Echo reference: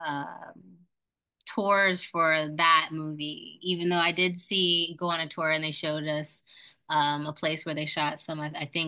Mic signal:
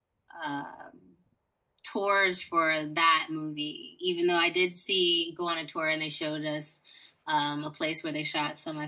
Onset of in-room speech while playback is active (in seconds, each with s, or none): none